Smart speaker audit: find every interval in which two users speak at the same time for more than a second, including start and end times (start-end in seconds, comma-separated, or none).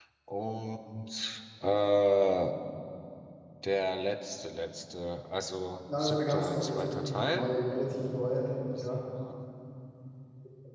6.0-7.5